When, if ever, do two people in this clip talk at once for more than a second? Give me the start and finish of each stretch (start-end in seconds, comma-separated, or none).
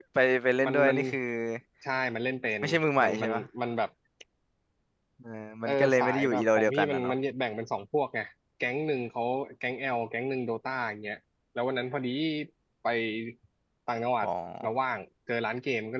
5.7-7.1